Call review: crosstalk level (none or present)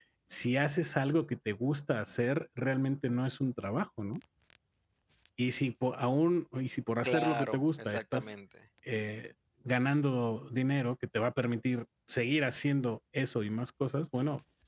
present